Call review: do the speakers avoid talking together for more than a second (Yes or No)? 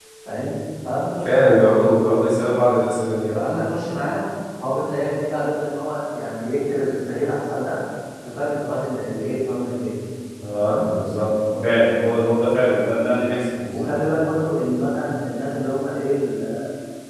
Yes